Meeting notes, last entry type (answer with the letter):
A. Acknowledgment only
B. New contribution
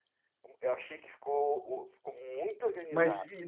B